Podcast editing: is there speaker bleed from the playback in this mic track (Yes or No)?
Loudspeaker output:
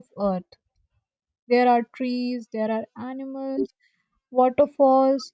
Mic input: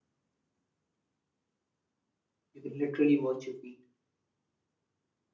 No